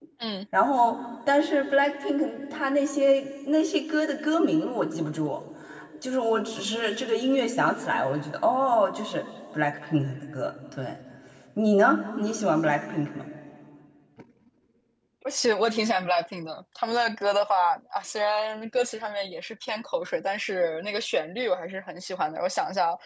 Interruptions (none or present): none